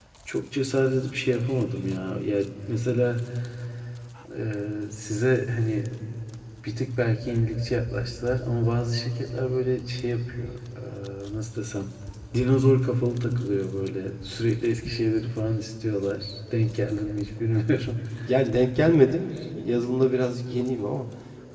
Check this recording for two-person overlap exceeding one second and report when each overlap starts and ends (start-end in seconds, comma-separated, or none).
none